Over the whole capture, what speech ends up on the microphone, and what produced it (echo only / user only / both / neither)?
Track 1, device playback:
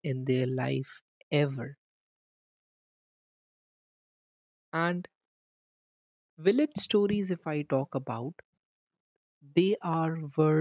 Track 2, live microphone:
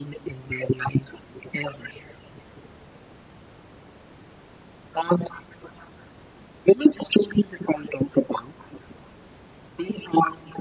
echo only